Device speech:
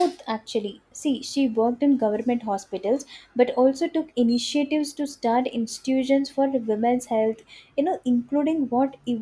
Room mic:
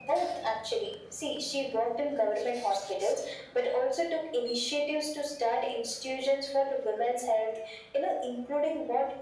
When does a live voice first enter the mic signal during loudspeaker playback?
none

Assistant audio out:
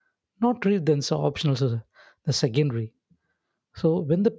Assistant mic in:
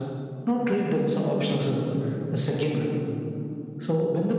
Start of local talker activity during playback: none

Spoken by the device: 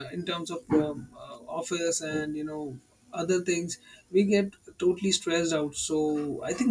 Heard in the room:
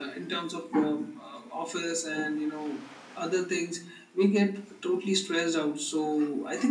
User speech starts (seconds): none

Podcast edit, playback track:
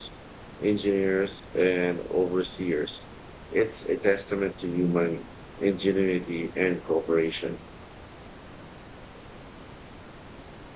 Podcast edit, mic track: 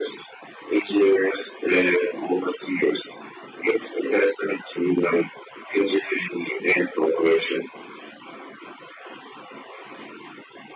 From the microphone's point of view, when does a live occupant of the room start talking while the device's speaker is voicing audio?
none

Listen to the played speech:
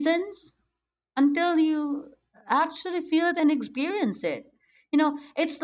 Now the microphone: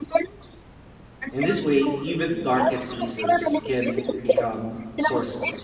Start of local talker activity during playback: 1 s

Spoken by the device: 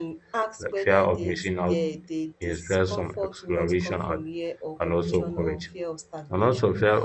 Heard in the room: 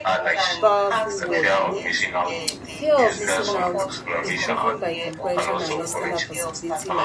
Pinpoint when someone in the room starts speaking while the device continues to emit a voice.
1 s

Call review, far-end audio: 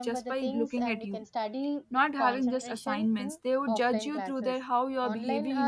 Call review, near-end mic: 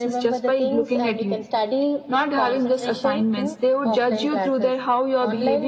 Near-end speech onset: none

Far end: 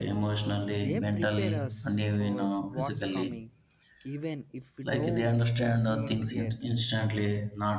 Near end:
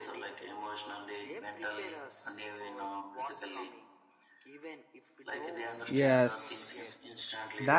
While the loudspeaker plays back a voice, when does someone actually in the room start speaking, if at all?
6 s

